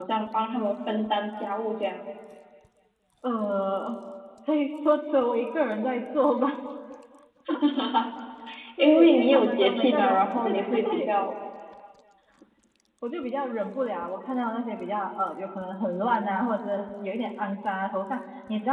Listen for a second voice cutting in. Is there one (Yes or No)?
Yes